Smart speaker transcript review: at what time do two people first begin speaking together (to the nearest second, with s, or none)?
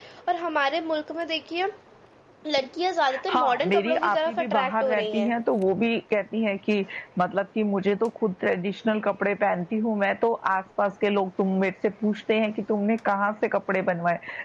3 s